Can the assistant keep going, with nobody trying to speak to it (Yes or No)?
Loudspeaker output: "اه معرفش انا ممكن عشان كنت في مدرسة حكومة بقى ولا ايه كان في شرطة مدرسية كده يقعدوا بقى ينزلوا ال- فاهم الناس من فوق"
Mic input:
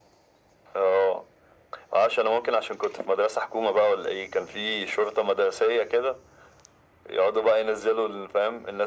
Yes